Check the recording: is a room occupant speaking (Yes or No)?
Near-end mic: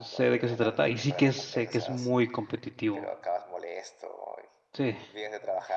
Yes